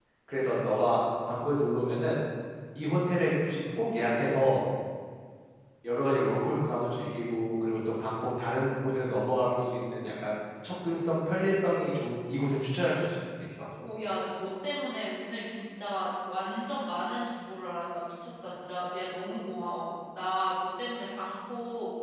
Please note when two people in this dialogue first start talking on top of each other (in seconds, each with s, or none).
none